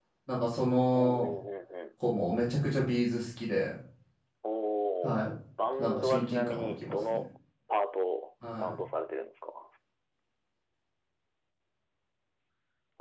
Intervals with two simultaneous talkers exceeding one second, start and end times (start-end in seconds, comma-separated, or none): 5.8-7.2